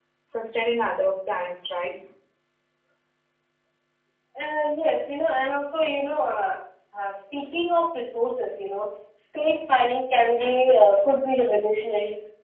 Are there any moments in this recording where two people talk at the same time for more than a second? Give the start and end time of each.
none

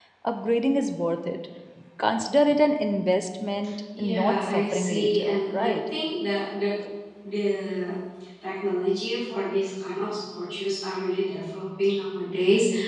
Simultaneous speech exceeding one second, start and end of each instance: 4.0-5.8

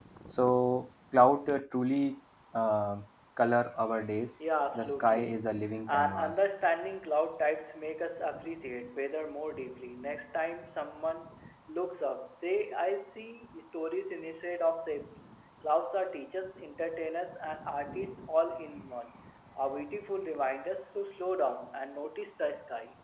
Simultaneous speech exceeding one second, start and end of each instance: 4.8-6.4

